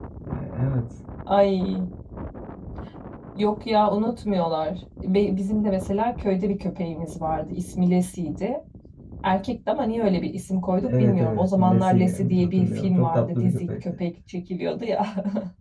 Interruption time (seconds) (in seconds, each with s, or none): 10.8 s